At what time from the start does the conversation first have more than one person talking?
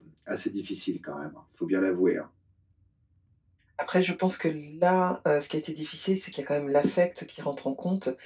none

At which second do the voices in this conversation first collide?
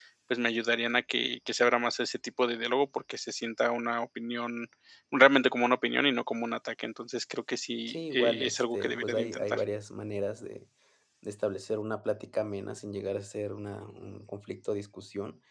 7.9 s

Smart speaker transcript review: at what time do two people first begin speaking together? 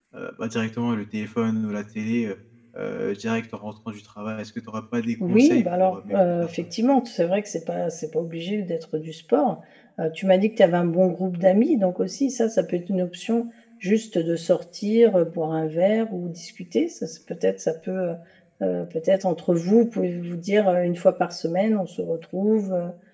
5.2 s

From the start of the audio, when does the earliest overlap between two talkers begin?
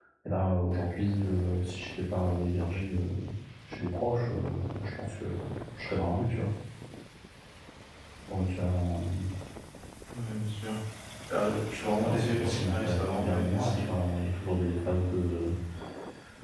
12.0 s

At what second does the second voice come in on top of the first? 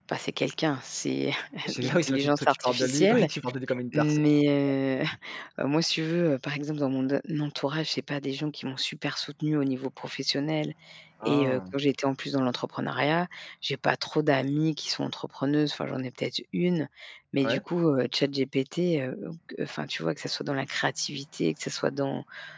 1.8 s

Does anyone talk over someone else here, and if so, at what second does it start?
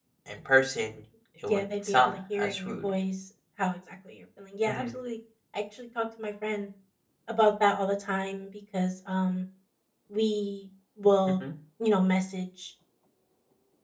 1.5 s

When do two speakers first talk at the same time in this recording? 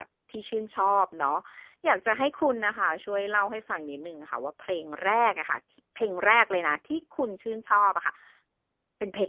none

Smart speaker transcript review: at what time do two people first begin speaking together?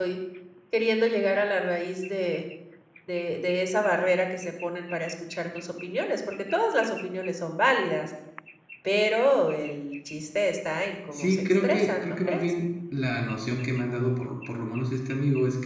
11.1 s

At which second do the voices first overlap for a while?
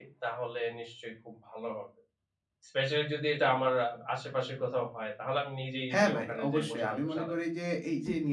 5.9 s

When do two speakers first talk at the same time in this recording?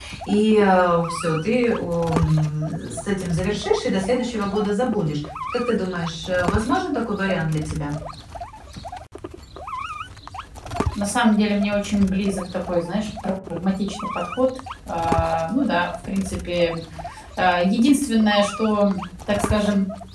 none

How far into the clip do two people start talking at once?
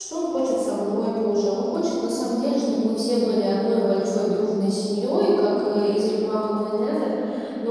none

